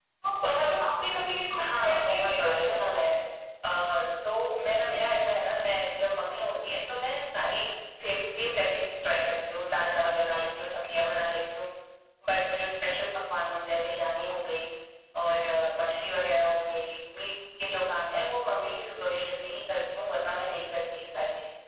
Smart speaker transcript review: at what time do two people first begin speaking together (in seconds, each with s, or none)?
1.6 s